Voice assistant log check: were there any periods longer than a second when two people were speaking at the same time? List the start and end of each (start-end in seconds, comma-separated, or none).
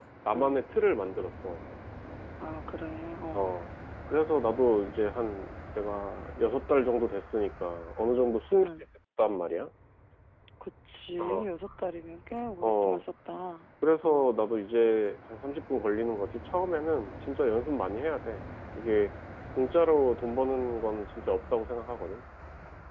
none